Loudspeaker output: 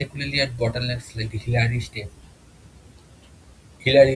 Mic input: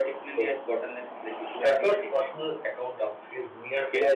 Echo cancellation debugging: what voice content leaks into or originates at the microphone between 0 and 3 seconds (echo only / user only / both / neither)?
both